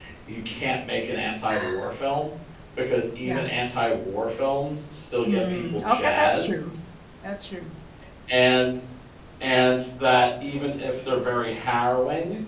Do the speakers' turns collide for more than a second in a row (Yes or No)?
Yes